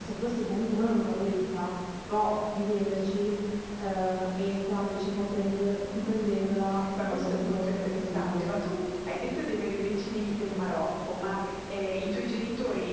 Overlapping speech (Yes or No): Yes